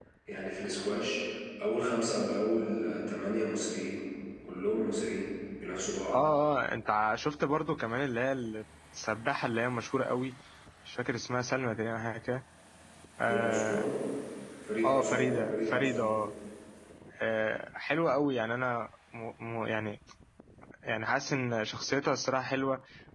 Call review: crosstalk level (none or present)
present